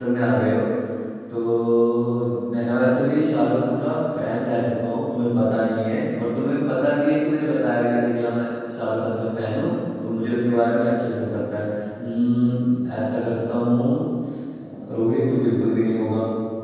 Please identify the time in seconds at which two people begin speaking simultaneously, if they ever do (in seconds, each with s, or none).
none